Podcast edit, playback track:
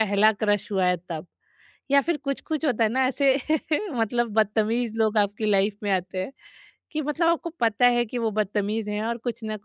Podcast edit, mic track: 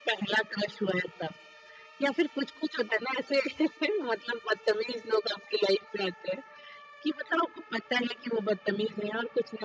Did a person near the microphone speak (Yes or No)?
No